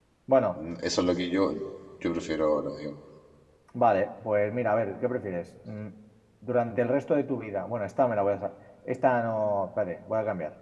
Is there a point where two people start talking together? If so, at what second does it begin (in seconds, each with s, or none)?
none